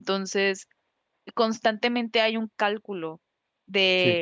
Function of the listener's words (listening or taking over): listening